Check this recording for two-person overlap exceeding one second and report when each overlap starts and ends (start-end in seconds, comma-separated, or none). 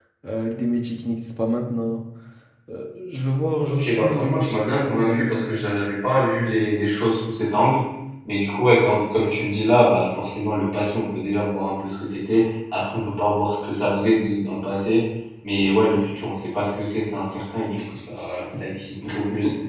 3.6-5.6